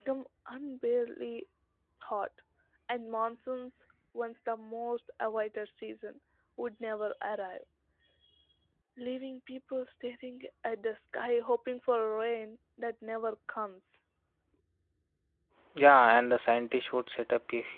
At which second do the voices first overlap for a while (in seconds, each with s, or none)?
none